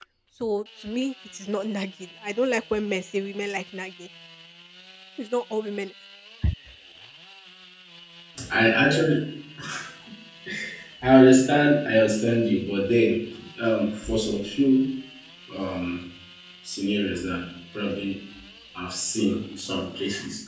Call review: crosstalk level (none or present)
none